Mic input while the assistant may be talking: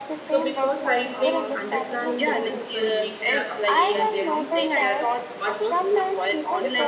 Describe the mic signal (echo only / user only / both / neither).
both